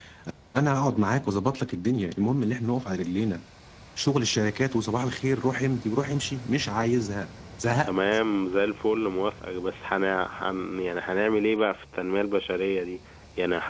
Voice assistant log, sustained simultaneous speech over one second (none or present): none